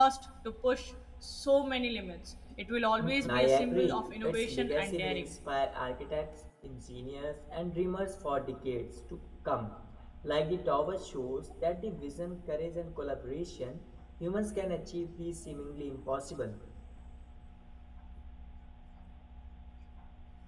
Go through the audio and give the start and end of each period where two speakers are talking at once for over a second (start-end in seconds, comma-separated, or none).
3.0-5.3